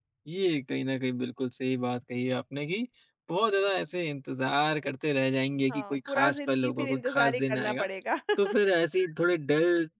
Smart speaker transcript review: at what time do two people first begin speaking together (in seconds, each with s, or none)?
5.7 s